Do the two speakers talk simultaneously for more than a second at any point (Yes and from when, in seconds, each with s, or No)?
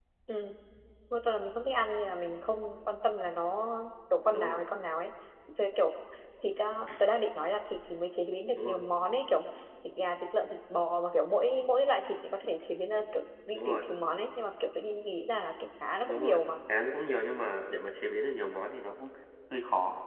No